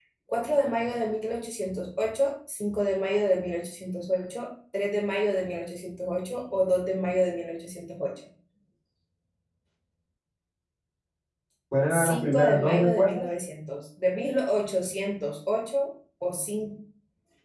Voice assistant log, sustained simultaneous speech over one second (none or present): present